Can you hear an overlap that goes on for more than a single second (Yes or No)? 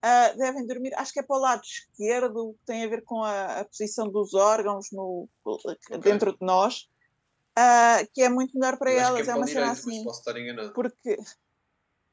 Yes